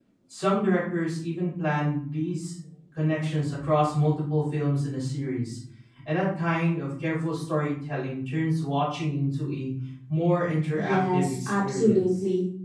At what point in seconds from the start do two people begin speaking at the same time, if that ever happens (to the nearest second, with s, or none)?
11 s